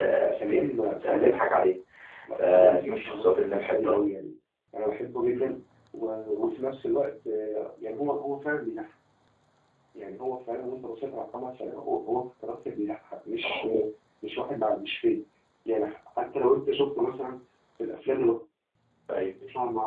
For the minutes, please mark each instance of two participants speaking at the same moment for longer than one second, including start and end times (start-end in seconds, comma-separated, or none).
2.4-4.0